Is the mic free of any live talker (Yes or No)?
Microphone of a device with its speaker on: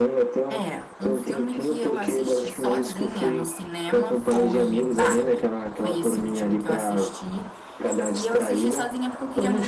No